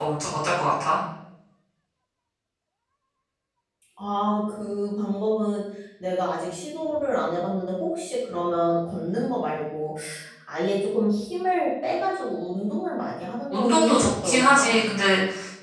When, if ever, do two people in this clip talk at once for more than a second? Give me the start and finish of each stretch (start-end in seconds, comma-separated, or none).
13.5-14.9